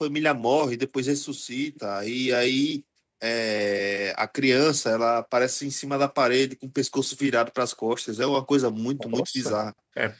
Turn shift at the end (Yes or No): Yes